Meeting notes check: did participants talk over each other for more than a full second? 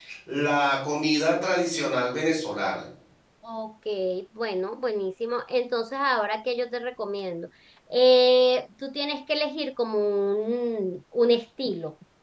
No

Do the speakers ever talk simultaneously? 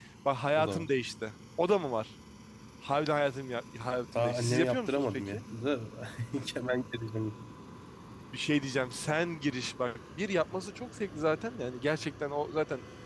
Yes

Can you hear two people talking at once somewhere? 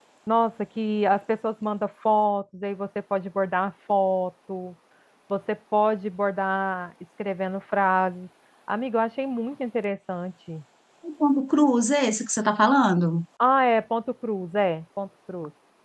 No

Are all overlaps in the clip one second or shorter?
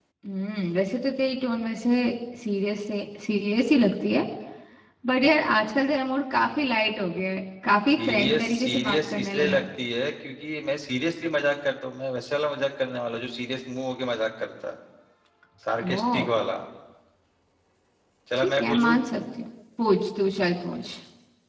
No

